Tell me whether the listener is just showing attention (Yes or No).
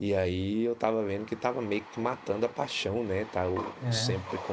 Yes